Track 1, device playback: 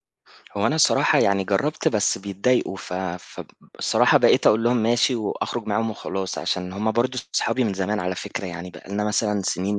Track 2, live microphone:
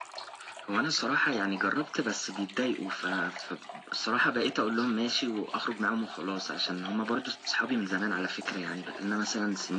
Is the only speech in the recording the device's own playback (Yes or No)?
Yes